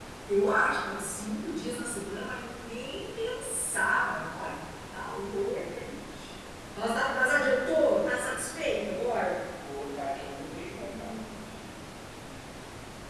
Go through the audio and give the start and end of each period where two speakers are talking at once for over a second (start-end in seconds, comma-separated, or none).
none